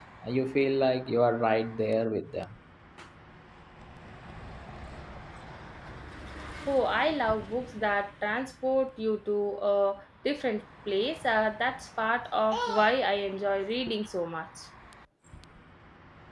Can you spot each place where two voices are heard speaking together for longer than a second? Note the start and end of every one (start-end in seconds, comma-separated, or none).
none